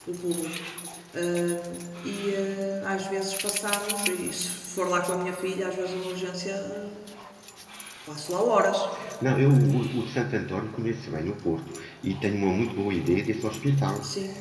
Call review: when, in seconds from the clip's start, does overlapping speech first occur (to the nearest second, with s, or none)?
none